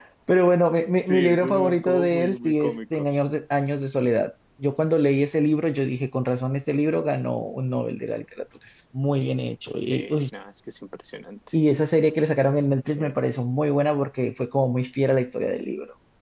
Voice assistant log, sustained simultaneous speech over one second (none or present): present